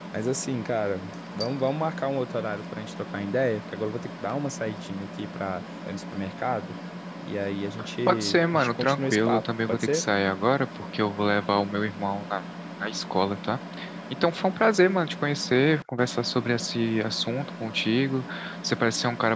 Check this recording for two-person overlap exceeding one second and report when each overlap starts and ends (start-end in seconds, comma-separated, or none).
8.1-10.0